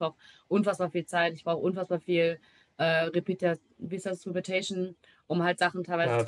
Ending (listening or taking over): listening